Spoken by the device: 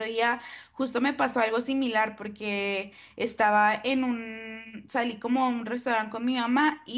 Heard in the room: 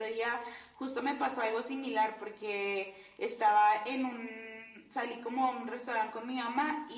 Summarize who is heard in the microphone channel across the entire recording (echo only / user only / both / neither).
echo only